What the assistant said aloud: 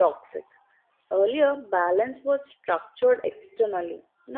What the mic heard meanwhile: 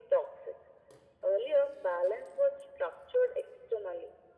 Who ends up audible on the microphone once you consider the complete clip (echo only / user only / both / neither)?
echo only